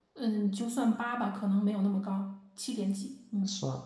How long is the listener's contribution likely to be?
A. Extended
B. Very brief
A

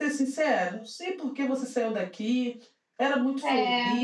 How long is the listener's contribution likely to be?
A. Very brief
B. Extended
A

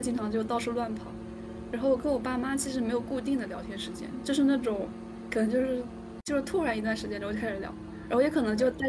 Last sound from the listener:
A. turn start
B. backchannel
B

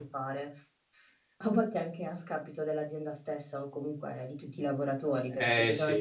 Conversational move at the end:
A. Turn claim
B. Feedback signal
B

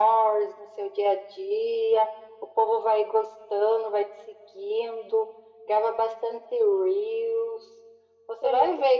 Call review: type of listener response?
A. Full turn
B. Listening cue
B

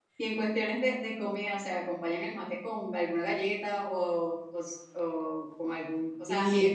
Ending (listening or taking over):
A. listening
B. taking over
A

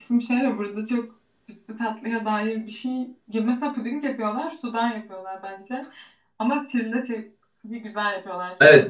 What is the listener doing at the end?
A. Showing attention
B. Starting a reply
B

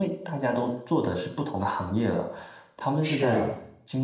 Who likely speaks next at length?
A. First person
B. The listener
A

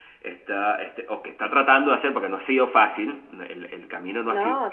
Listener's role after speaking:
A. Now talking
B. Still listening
B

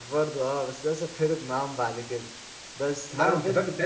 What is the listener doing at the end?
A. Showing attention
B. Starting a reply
B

